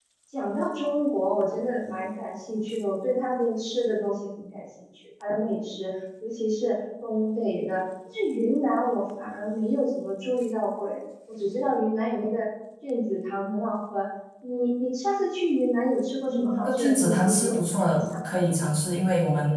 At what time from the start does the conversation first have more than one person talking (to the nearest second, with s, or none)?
16 s